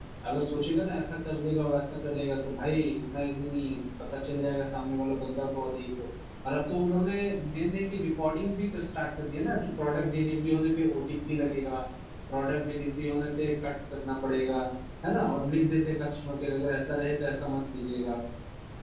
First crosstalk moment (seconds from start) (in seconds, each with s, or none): none